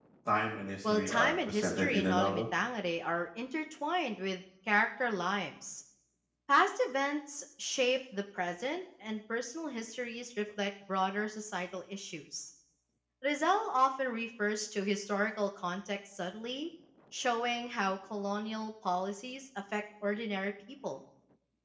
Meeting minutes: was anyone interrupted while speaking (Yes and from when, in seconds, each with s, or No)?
Yes, from 0.8 s